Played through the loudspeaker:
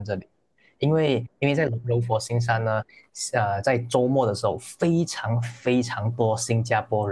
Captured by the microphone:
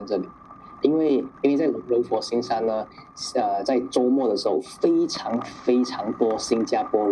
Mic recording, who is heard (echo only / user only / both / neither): echo only